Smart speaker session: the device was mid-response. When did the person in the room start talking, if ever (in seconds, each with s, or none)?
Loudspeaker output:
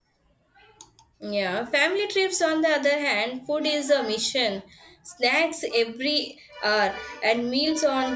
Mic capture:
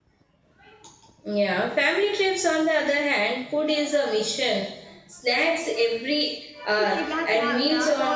6.8 s